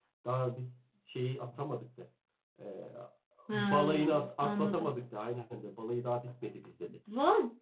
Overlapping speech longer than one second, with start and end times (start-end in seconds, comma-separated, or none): 3.5-5.0